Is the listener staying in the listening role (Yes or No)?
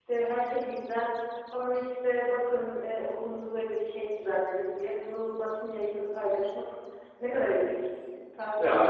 No